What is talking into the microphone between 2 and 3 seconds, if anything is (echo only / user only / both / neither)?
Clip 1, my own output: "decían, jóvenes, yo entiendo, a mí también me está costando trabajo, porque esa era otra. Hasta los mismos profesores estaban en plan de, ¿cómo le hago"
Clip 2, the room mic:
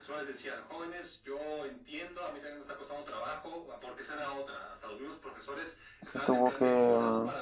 echo only